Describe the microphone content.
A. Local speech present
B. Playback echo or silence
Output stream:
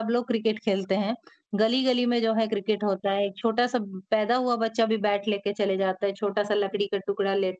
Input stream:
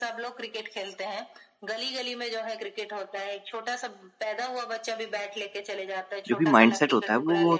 A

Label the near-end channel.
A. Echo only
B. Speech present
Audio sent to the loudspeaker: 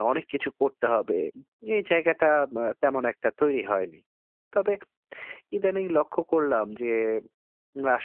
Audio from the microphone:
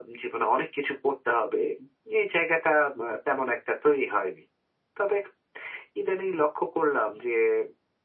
A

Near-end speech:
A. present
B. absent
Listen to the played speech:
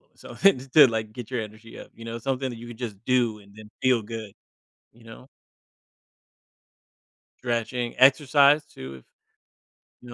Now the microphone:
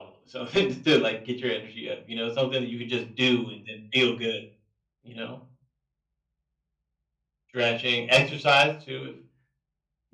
B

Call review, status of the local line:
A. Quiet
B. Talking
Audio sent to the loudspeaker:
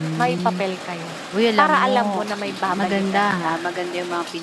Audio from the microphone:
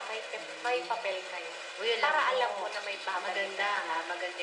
A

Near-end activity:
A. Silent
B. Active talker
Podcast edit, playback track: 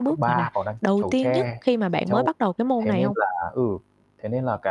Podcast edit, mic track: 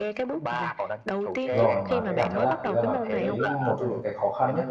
B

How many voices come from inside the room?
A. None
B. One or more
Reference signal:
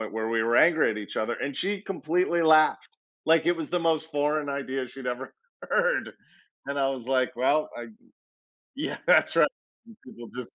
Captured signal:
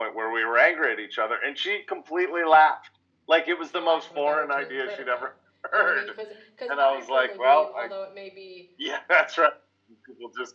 B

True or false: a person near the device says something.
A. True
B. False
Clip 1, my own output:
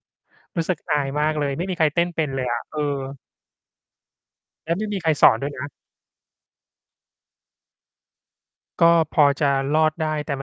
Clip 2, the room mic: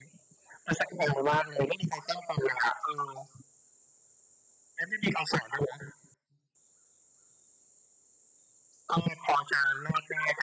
B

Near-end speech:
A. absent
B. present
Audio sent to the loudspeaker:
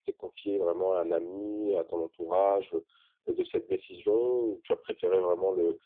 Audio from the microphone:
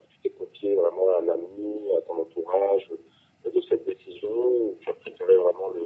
A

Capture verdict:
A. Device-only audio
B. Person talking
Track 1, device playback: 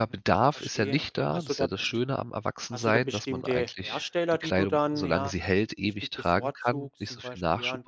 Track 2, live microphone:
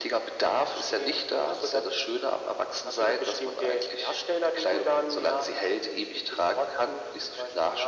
A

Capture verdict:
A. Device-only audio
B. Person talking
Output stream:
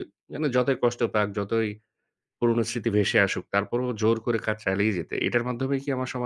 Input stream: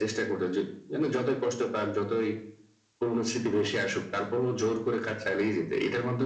A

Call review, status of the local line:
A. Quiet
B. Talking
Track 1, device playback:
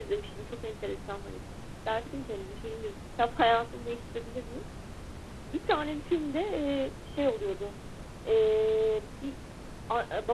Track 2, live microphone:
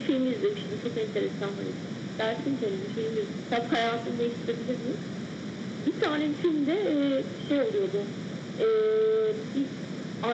A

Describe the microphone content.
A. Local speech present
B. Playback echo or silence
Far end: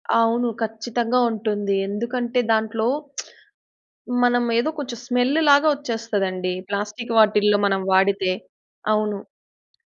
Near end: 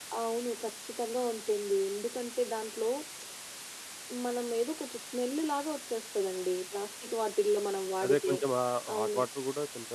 A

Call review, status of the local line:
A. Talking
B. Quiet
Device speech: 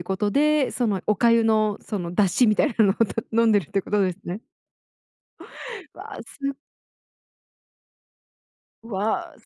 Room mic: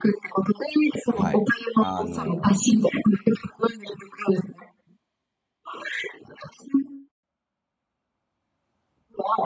A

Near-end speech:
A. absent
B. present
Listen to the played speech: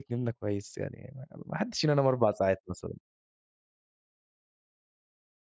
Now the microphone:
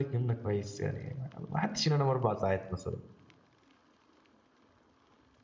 A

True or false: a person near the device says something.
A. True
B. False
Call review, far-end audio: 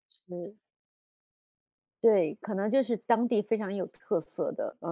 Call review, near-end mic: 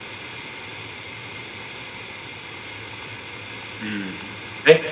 A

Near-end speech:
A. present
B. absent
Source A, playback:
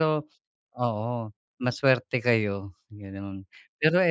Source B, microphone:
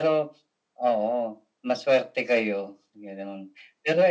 B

